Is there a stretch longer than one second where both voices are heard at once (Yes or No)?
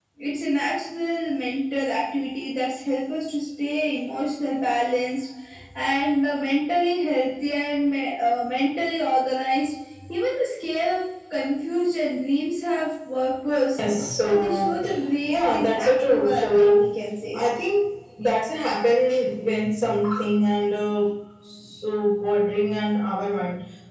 Yes